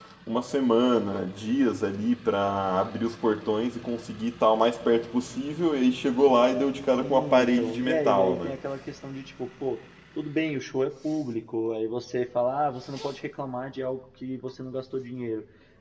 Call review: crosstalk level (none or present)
present